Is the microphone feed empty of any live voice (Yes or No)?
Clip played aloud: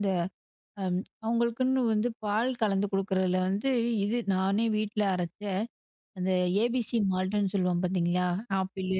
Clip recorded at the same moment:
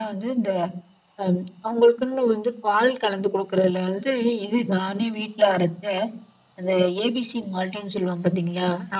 Yes